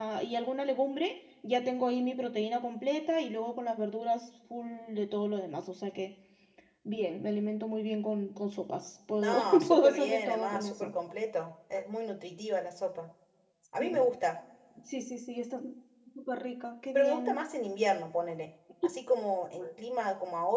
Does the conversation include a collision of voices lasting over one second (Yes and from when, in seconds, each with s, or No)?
Yes, from 9.2 s